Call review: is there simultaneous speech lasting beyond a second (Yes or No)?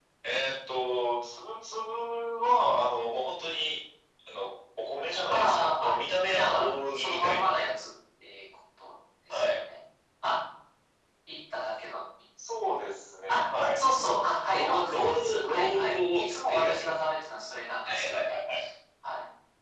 Yes